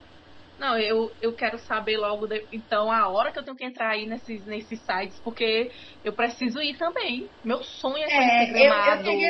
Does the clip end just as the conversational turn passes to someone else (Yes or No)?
Yes